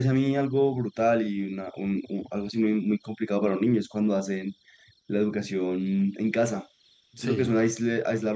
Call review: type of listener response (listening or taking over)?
listening